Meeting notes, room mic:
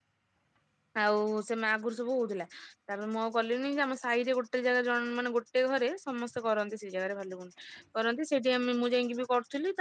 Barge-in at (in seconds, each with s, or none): 1.0 s